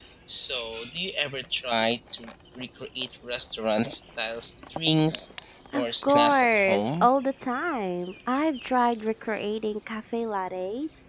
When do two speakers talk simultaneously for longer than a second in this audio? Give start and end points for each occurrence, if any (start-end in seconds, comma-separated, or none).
5.7-7.1